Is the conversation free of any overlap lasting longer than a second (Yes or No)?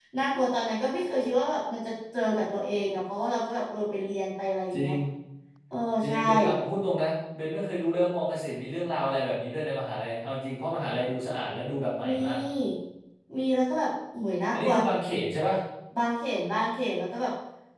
Yes